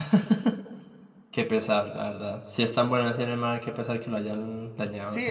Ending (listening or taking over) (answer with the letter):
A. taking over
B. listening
A